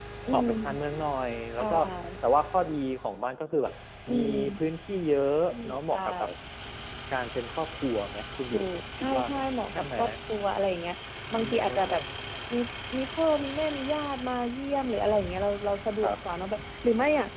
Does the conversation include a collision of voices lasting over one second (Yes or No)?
Yes